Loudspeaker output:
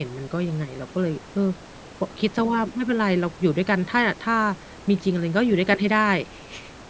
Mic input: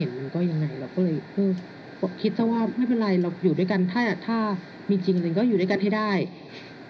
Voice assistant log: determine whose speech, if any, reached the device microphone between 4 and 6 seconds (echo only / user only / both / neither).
echo only